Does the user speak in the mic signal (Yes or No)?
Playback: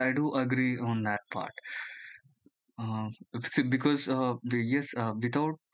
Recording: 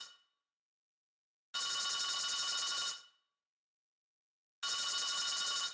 No